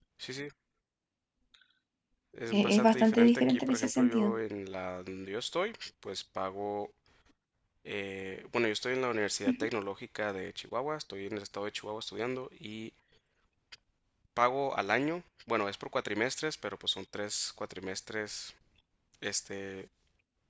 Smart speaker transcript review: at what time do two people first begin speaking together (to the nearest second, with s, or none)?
3 s